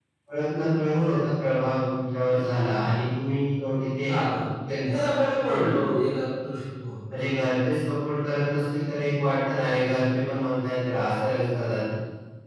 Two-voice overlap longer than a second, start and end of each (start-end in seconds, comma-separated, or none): none